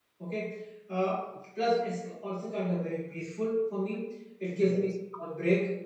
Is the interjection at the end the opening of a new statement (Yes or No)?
No